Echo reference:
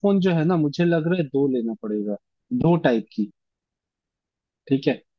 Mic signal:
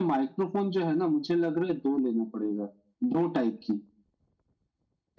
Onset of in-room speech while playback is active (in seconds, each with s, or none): none